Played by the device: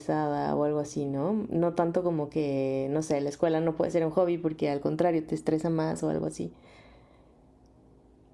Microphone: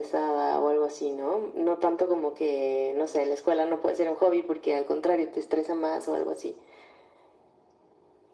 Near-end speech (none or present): none